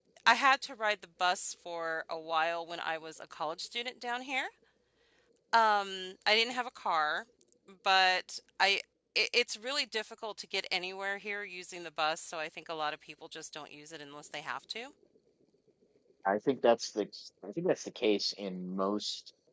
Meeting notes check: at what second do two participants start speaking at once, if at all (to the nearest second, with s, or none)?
none